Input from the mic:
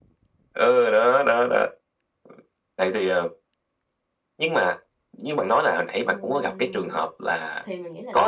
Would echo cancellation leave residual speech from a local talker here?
Yes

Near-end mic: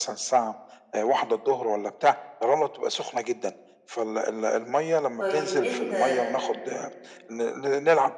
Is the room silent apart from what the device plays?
No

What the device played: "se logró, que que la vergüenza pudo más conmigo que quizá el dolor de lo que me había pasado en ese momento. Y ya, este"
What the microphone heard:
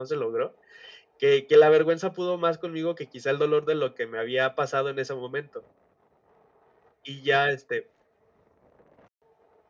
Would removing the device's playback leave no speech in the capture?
Yes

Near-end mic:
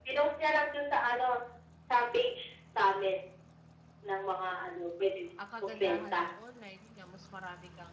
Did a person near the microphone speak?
Yes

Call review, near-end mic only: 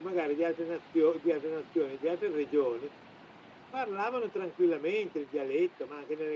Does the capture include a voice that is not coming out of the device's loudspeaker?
No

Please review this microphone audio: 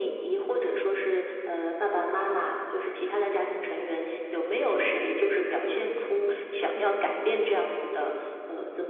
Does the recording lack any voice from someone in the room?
Yes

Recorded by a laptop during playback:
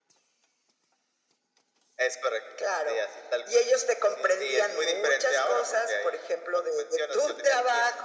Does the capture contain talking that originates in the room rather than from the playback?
No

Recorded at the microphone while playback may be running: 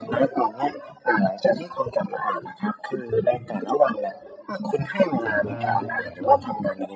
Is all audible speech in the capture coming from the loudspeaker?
No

